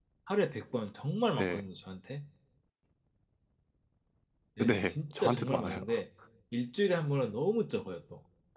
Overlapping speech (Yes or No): Yes